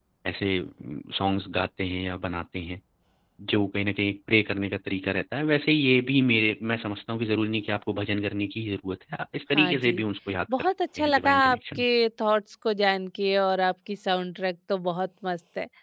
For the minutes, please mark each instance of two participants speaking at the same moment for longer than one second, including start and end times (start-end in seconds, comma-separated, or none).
10.6-11.8